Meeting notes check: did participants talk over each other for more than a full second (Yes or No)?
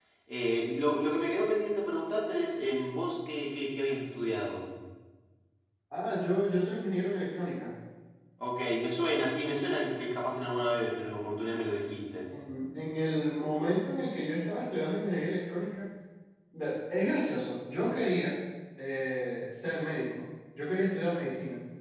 No